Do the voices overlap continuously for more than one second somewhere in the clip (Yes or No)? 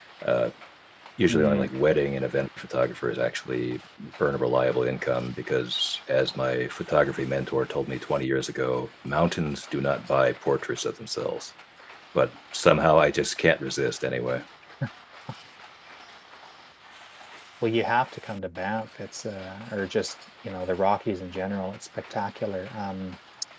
No